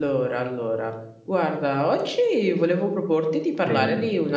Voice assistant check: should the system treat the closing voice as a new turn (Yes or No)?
No